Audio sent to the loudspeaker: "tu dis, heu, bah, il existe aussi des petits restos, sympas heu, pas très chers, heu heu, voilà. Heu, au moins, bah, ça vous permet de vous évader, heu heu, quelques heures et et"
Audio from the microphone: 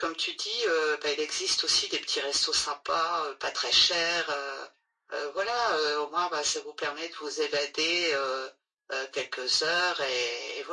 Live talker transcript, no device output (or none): none